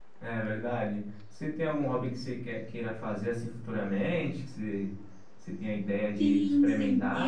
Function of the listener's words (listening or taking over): taking over